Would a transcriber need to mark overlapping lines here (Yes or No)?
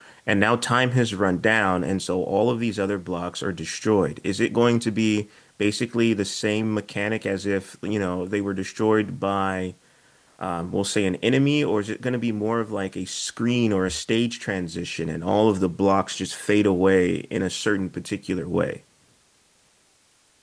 No